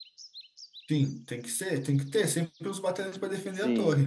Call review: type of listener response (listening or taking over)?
taking over